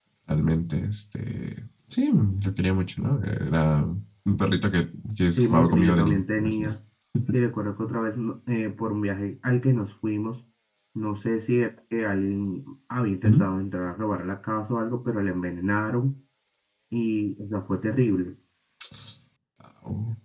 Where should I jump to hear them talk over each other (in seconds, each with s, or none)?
5.4 s